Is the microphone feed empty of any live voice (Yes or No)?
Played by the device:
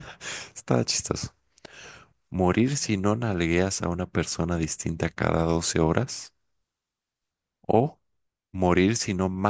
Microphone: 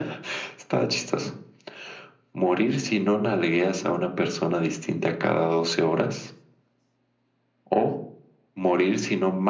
Yes